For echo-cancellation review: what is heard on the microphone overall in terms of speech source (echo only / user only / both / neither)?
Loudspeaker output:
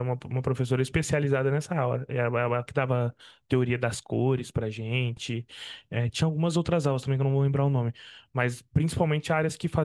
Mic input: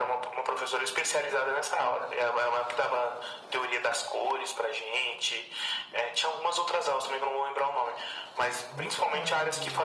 both